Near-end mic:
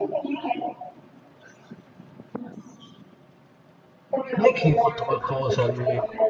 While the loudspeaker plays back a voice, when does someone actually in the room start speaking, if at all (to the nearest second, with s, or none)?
4 s